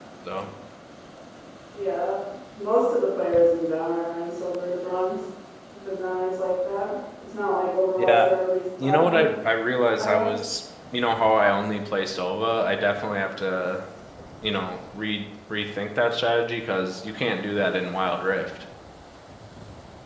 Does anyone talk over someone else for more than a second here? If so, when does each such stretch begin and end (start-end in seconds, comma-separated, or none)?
none